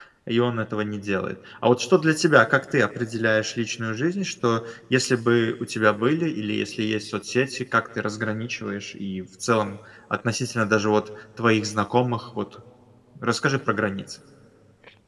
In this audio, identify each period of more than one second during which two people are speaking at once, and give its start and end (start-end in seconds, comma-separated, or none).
none